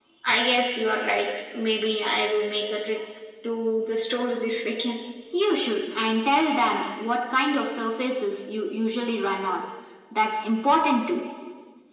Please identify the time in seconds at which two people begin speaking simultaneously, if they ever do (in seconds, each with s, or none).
none